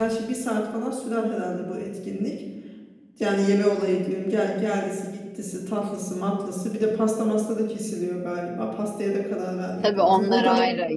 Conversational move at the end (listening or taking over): taking over